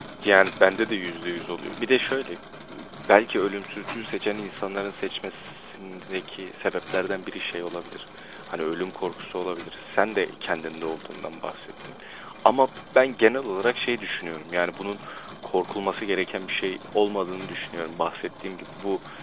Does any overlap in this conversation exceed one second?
No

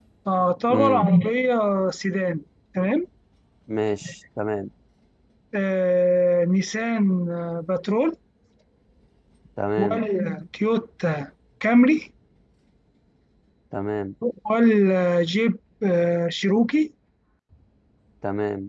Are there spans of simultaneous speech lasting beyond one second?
No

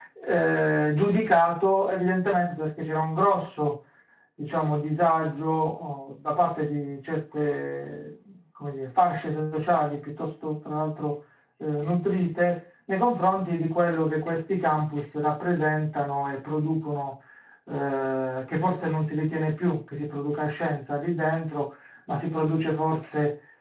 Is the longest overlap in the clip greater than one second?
No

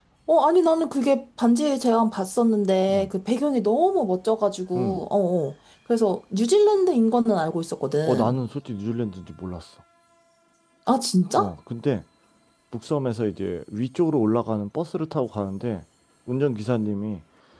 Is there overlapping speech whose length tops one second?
No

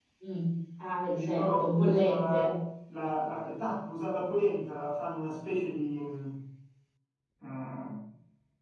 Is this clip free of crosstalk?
No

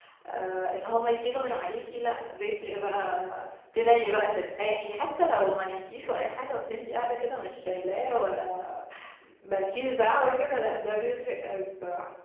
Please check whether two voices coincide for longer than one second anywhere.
No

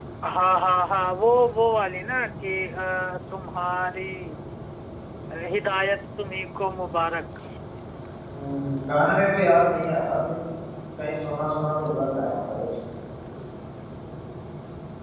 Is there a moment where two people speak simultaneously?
No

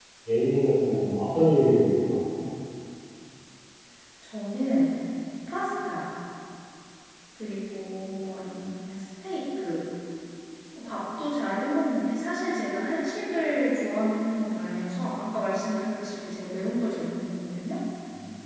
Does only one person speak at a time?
Yes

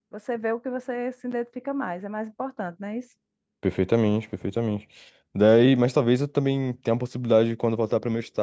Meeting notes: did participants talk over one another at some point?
No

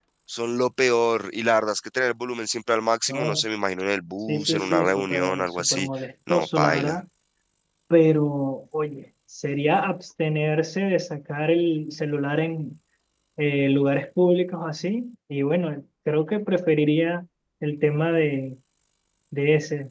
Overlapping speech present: Yes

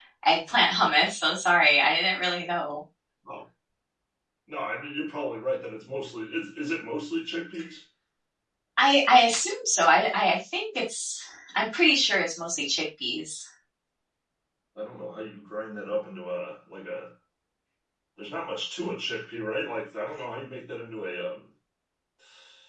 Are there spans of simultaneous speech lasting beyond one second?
No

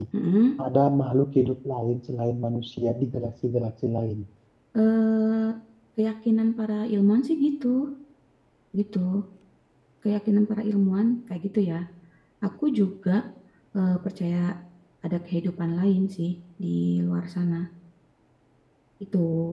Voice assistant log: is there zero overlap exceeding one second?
Yes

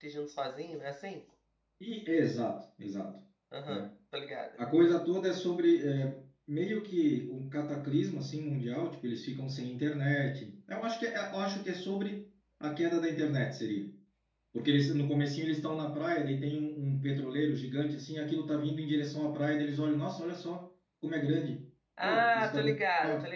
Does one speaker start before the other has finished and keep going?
Yes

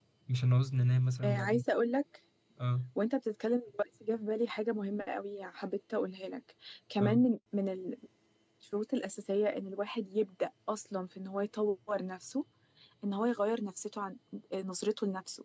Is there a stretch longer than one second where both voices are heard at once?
No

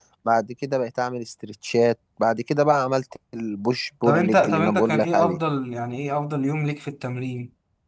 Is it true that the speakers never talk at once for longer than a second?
No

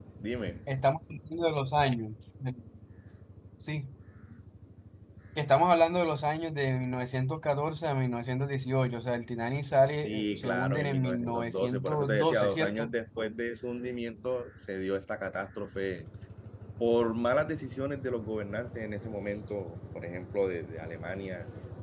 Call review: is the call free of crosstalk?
No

